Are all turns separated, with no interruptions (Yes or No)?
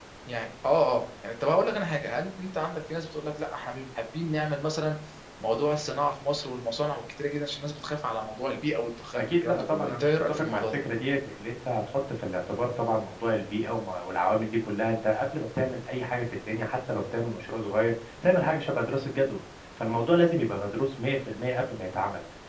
No